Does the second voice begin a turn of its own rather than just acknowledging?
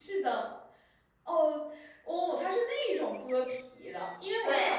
No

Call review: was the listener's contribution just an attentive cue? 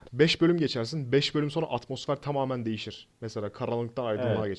Yes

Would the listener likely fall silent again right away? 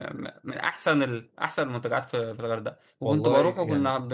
Yes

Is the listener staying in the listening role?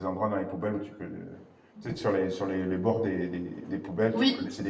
Yes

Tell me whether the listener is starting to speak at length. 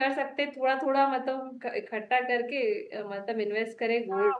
Yes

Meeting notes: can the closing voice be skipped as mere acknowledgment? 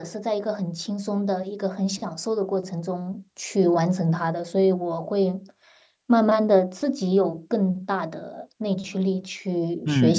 No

